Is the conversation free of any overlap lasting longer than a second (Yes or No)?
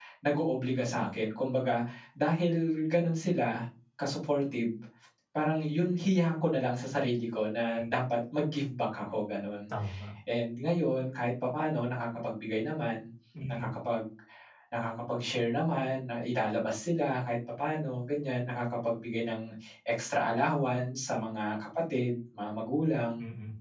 Yes